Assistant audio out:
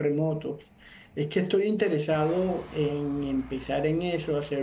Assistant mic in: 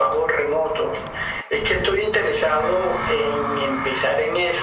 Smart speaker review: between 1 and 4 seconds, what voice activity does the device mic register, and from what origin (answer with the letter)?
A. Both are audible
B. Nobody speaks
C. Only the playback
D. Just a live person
C